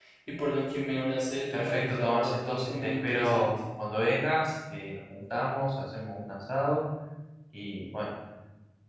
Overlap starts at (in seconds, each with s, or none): 1.5 s